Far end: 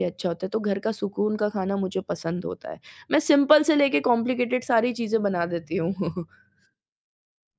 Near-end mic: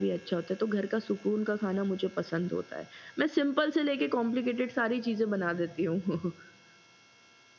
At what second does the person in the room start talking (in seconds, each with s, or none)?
none